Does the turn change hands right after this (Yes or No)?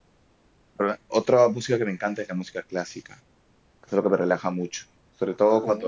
No